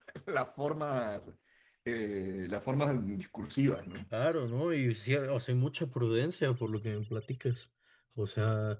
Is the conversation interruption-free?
Yes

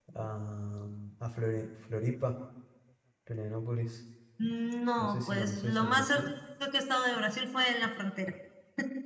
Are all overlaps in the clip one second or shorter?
No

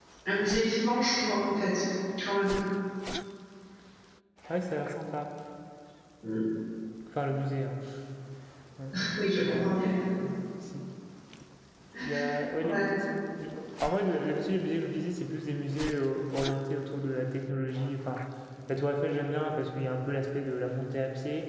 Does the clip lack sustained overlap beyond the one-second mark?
Yes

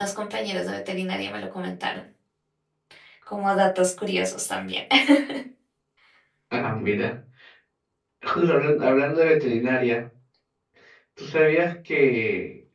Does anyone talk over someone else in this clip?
No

